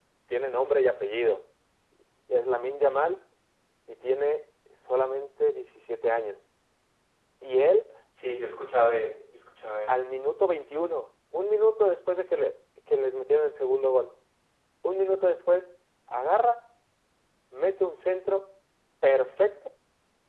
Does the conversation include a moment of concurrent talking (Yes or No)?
No